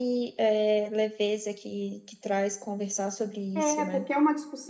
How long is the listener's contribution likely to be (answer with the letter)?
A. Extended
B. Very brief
A